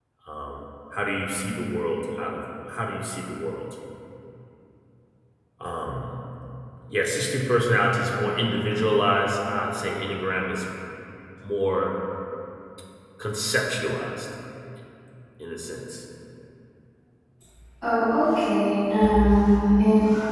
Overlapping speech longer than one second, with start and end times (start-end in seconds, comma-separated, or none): none